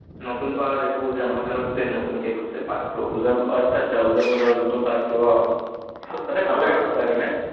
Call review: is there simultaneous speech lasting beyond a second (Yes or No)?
No